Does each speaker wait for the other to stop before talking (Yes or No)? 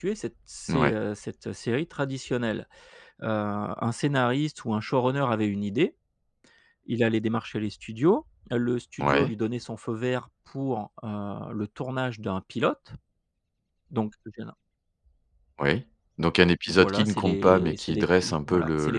No